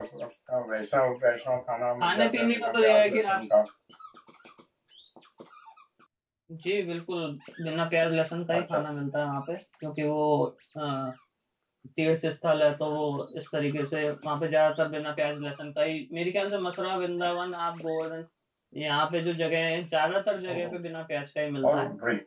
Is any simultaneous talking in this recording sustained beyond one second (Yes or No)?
Yes